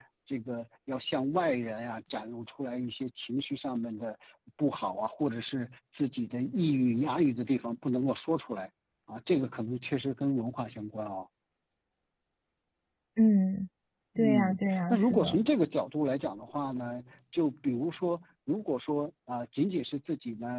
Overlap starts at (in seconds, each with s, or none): 14.2 s